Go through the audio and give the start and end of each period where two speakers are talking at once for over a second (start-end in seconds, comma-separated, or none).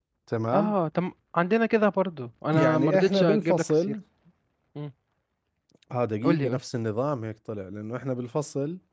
2.5-4.0